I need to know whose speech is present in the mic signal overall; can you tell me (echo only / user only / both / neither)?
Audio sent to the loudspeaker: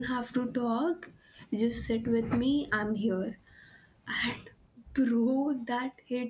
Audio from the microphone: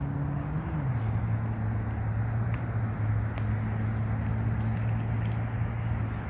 neither